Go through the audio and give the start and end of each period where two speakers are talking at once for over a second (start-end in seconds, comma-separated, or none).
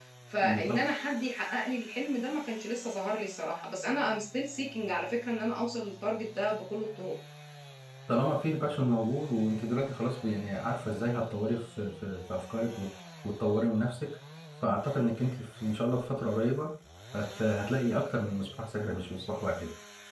none